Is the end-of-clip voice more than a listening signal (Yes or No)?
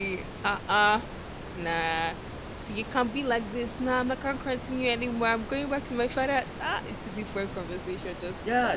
Yes